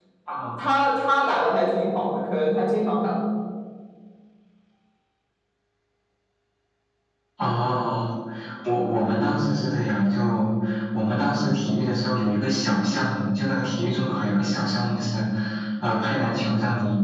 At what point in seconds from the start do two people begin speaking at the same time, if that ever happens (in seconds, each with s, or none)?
none